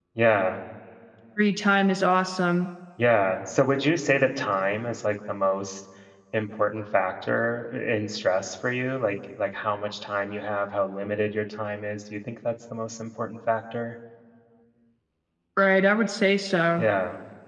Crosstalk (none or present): none